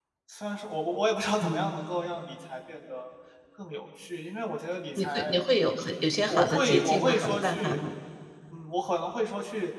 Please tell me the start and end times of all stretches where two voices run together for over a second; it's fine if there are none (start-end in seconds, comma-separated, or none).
6.3-7.8